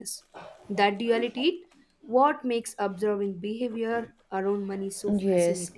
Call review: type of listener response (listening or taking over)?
taking over